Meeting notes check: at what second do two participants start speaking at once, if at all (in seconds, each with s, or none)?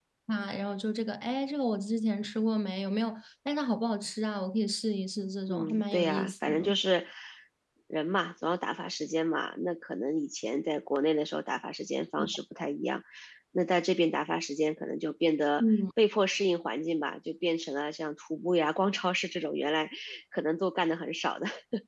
5.5 s